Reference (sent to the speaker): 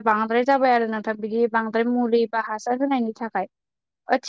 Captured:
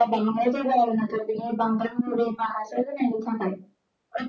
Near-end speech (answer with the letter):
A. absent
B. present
A